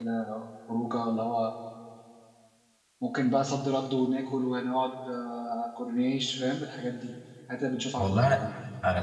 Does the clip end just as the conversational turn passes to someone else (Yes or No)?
Yes